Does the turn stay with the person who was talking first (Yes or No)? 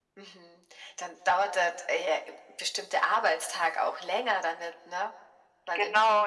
No